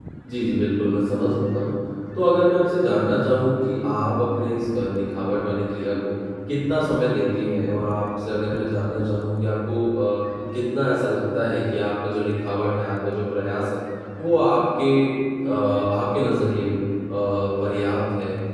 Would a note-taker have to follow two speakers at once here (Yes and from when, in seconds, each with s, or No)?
No